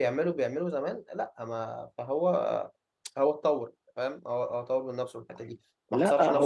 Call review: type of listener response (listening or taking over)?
taking over